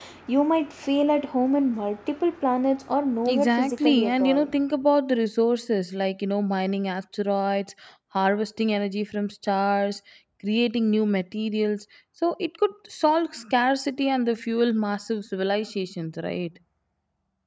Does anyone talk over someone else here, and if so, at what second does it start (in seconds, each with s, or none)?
3.2 s